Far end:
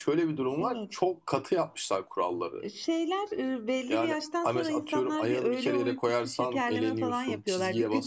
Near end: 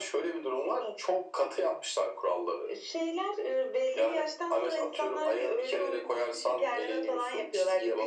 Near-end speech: none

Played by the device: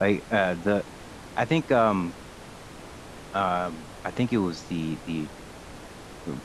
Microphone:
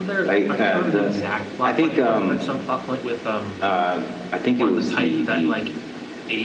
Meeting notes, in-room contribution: present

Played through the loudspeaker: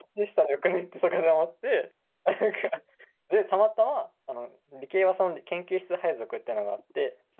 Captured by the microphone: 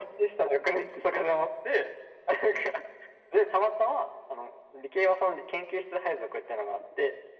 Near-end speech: none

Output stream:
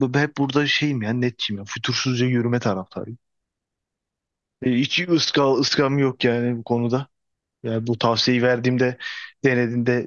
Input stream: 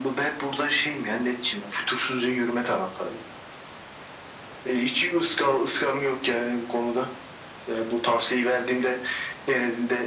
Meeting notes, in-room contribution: none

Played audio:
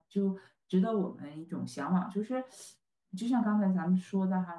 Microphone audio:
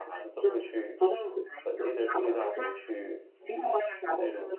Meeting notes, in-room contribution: present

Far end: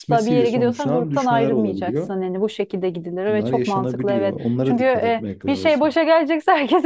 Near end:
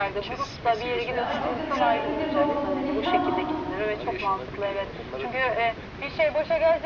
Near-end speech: present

